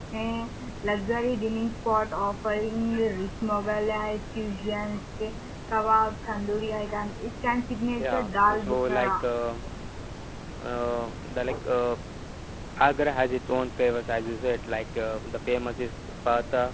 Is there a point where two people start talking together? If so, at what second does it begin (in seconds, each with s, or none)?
8.0 s